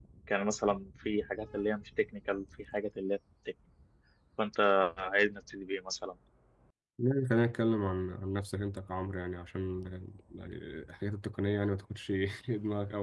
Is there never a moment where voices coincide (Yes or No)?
Yes